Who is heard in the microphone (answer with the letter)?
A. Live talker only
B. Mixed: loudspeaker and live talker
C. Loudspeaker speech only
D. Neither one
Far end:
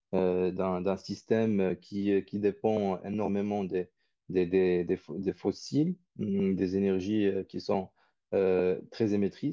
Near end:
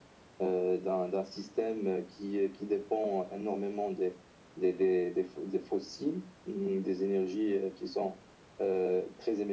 C